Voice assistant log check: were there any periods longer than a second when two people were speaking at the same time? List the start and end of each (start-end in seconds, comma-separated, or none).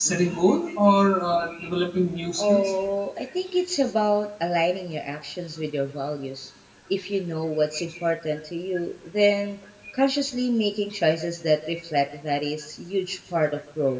none